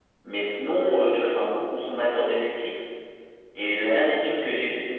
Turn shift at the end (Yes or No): No